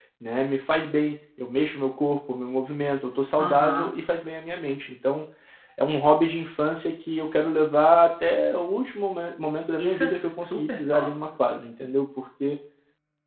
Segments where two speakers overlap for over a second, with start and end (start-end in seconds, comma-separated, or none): 9.8-11.1